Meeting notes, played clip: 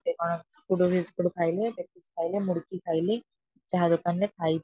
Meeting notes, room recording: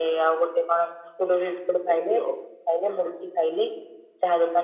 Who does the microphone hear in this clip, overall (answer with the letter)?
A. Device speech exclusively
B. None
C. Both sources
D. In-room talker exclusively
C